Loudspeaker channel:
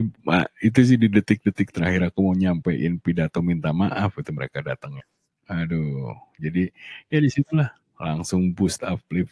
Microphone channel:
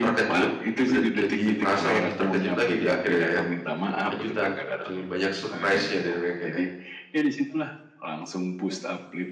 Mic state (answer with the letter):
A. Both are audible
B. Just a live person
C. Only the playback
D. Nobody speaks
A